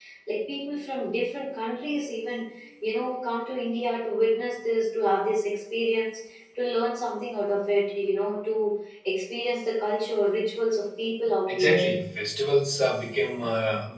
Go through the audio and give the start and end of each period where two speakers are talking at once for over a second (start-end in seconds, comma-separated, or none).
none